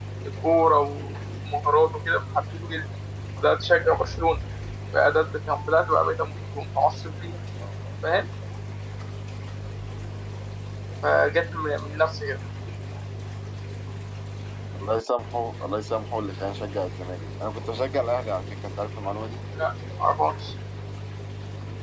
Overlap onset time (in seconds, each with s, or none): none